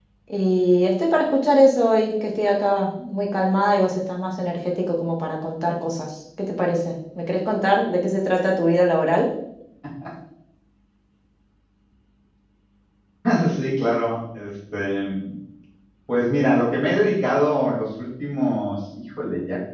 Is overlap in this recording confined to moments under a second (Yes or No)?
Yes